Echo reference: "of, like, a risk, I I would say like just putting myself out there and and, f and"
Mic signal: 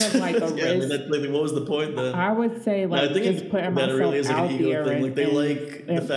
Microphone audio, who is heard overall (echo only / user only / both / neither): both